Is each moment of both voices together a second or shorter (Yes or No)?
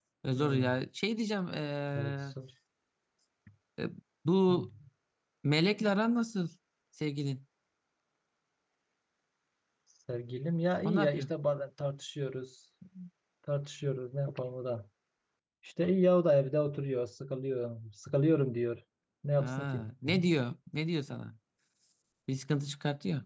Yes